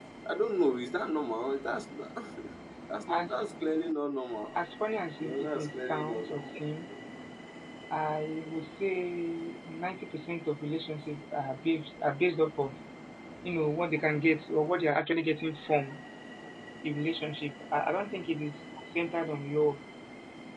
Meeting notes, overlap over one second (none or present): present